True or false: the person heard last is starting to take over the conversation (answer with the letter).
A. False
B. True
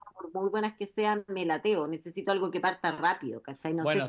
B